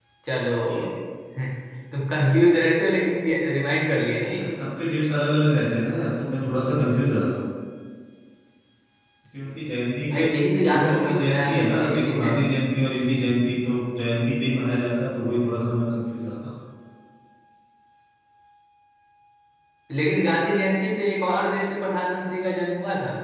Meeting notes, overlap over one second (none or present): present